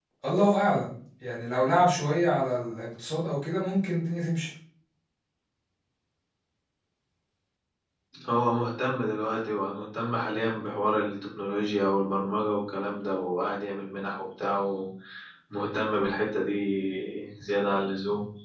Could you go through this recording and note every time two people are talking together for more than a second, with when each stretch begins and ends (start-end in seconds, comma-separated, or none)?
none